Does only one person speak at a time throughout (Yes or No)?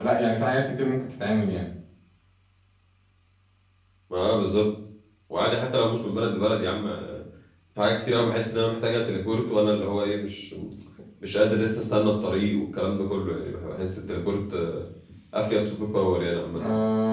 Yes